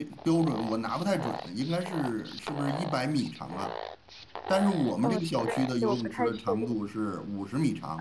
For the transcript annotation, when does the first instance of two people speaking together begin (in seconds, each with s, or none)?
5.0 s